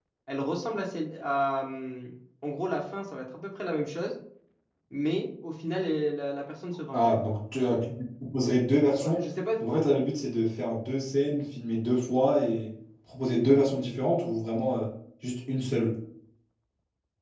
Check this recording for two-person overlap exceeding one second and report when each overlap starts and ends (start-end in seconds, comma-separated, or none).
none